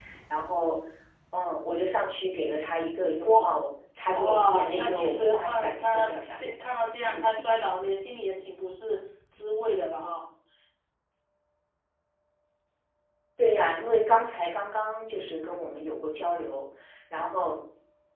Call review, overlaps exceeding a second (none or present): present